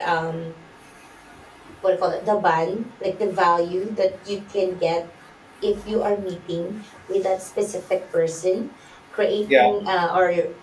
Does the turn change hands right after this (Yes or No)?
No